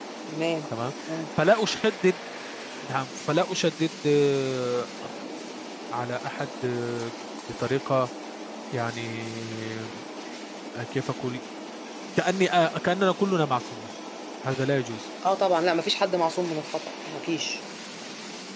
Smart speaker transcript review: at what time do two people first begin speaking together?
none

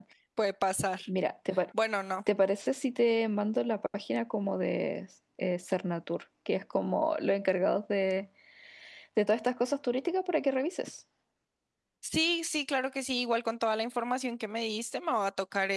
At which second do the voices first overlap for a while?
none

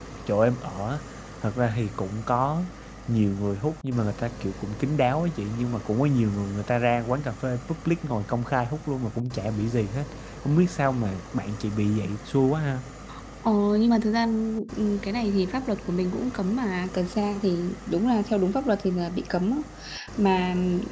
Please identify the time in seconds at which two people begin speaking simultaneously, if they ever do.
none

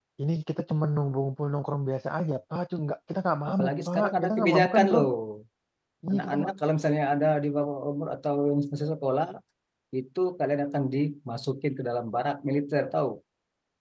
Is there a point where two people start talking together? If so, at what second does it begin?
4 s

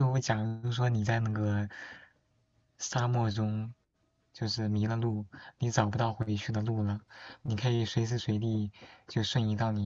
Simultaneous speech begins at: none

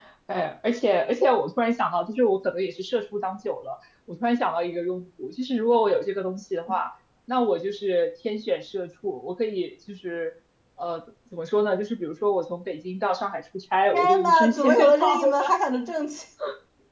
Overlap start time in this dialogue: 14 s

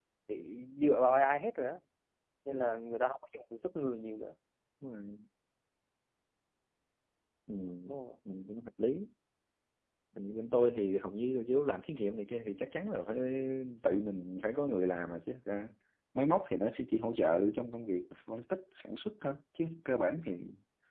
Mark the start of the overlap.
none

